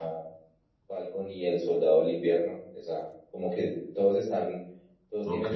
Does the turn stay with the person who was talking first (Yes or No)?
Yes